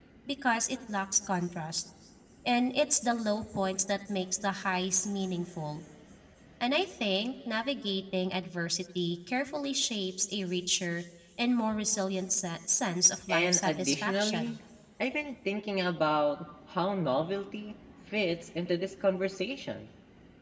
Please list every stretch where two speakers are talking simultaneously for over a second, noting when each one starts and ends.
13.3-14.6

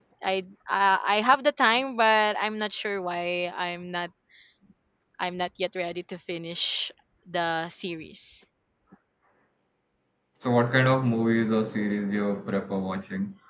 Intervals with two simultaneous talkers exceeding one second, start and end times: none

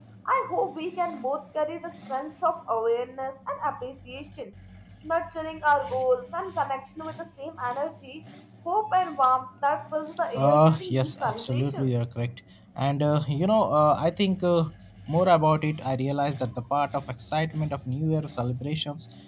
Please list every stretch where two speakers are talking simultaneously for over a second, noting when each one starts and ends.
10.3-11.9

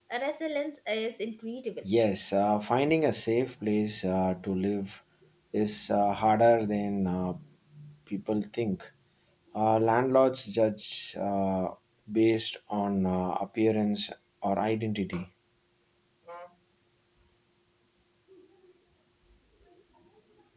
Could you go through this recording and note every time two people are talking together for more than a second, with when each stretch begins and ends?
none

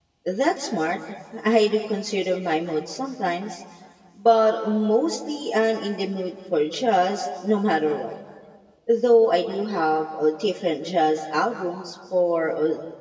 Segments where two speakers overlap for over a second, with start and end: none

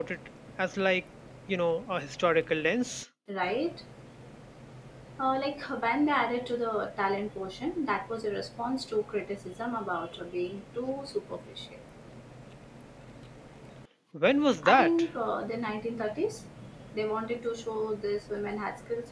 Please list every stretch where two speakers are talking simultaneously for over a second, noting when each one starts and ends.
none

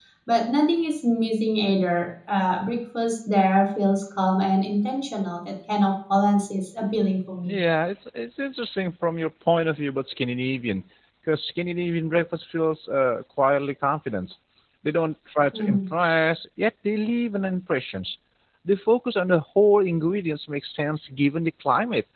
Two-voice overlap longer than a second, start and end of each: none

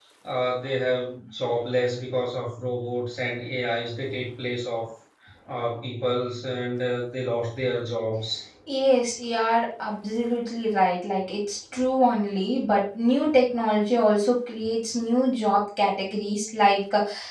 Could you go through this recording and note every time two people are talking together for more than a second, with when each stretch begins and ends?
none

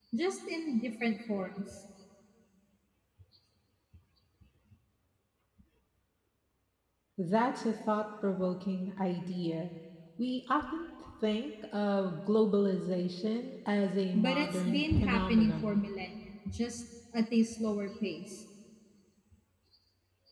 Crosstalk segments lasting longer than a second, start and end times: 14.2-15.8

